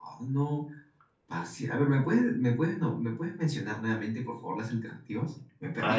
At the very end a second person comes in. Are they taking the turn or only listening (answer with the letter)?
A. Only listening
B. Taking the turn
B